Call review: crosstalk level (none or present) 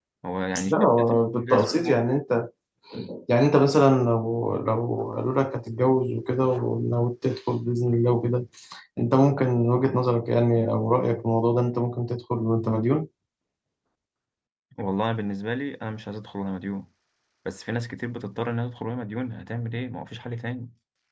present